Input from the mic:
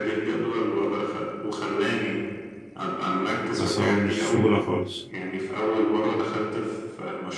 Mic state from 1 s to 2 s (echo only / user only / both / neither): echo only